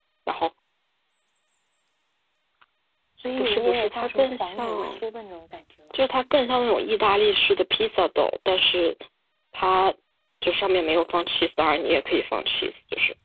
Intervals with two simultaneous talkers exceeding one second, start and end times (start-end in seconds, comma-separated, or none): 3.4-5.0